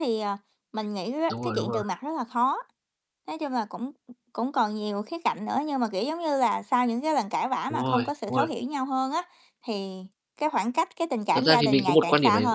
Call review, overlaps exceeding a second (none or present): present